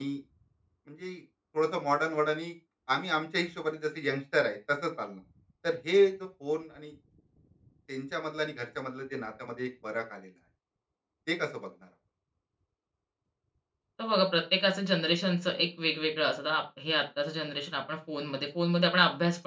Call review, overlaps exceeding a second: none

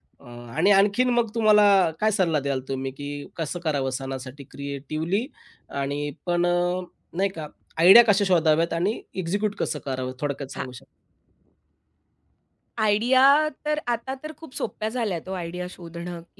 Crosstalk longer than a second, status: none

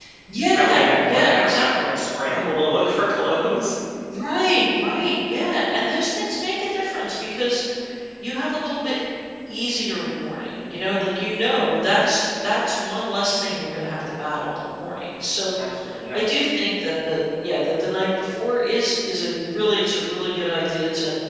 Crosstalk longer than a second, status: present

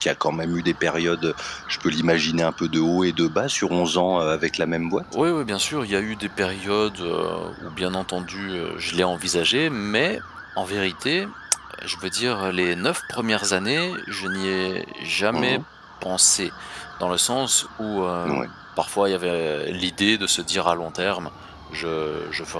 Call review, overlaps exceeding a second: none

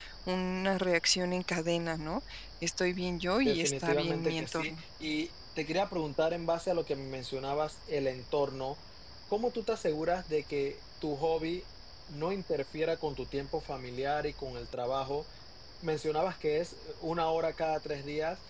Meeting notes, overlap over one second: present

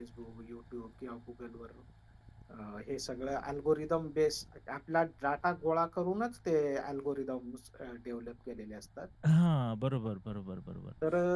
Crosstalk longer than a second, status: none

